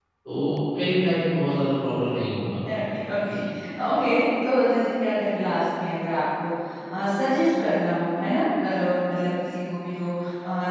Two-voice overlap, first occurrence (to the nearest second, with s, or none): none